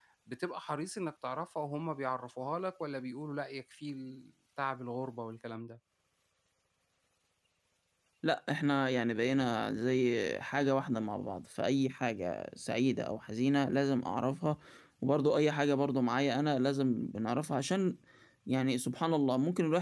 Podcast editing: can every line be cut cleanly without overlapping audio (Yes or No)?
Yes